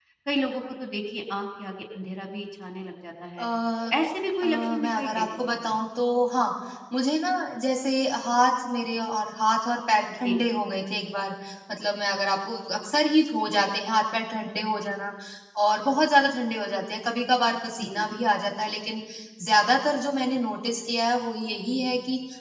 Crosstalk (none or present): present